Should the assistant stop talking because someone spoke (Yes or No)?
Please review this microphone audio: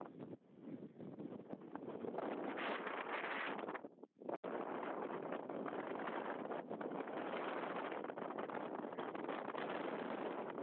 No